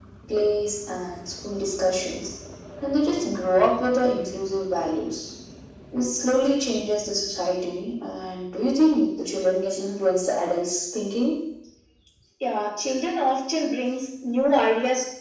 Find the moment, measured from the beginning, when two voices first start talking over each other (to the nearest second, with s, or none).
none